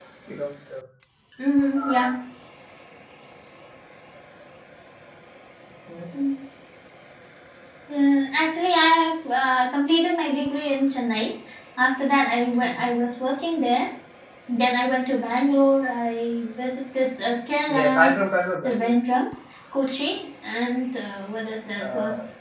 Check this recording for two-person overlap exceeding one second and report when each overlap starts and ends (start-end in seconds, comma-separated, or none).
none